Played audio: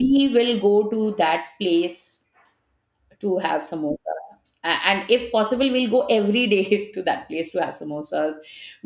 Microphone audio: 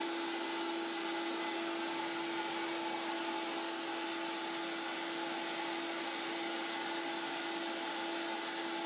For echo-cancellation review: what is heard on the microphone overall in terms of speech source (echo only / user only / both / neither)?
neither